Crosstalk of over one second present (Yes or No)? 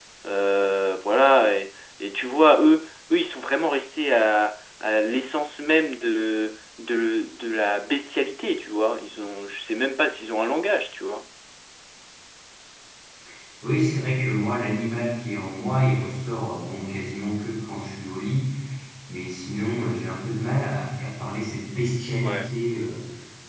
No